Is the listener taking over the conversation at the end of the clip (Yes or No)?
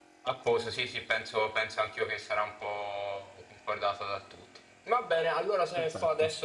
No